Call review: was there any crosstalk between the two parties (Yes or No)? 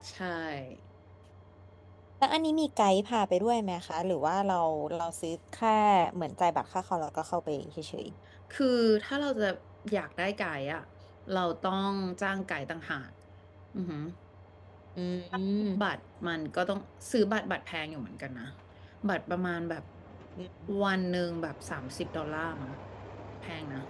No